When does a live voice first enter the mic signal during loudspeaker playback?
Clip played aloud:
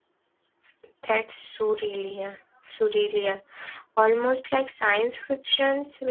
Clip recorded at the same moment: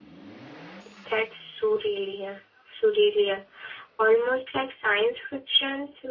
none

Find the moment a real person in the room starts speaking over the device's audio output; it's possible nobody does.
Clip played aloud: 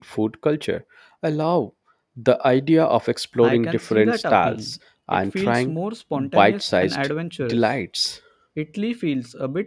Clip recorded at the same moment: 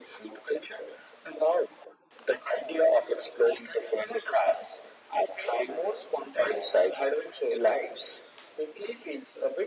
none

